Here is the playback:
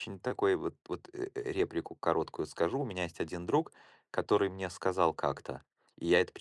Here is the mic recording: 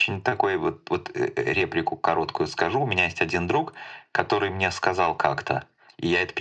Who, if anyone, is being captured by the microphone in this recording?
echo only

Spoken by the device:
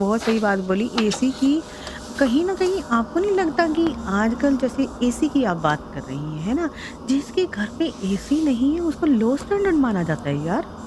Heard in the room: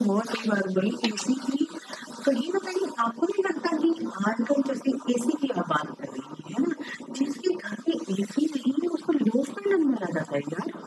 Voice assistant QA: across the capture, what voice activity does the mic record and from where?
echo only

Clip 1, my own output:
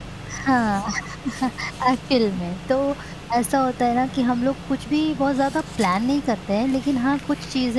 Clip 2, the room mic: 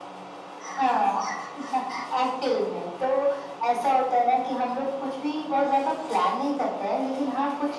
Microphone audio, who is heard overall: echo only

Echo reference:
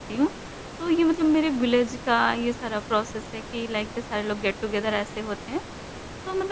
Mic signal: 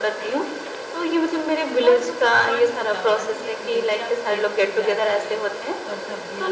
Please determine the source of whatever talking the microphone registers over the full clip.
both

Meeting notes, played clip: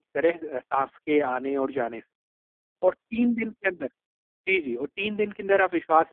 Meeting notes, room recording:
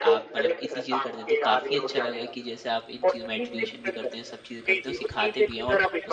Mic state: both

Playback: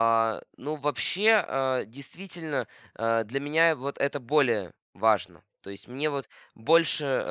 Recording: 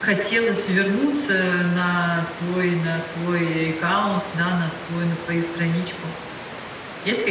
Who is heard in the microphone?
user only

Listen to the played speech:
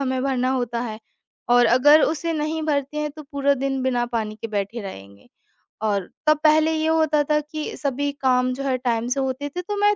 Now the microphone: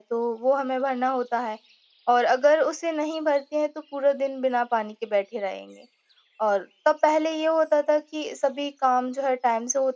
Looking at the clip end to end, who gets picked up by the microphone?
echo only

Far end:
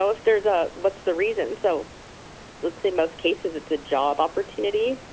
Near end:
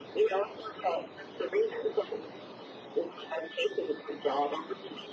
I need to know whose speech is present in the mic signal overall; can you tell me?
echo only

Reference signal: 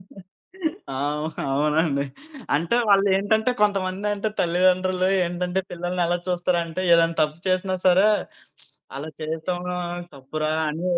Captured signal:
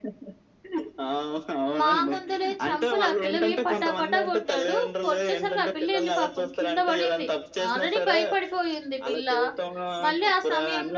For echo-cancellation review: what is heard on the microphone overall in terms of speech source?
both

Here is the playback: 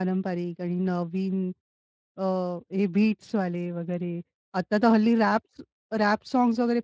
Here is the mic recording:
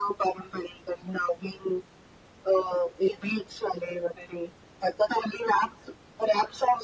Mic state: echo only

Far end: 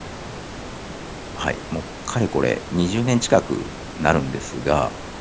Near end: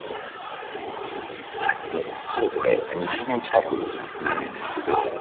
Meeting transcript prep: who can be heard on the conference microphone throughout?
both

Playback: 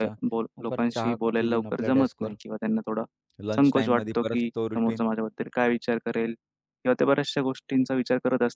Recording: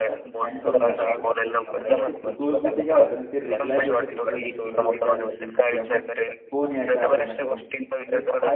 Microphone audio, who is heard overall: both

